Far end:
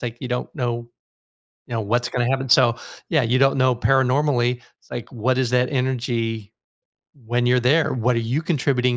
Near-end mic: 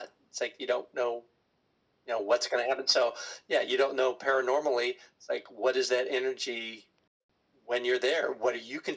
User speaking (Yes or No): No